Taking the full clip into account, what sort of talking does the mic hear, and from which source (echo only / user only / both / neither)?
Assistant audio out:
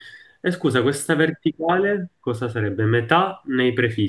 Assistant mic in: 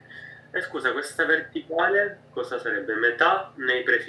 echo only